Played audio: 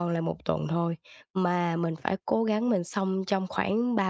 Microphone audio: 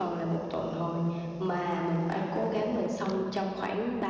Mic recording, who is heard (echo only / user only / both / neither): echo only